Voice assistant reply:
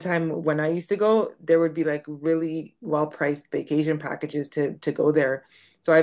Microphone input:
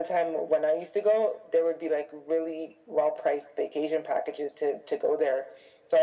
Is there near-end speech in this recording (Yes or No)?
No